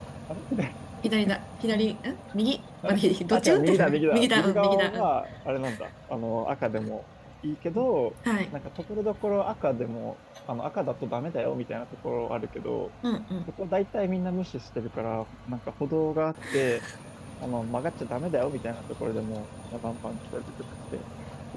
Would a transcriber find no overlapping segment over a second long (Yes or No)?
No